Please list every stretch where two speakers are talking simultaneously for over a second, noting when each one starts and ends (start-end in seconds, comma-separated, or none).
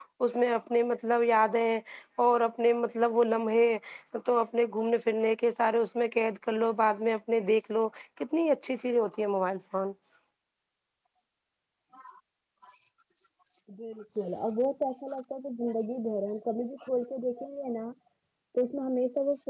none